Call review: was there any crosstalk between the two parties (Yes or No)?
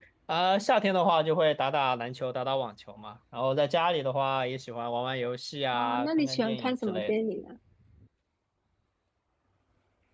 Yes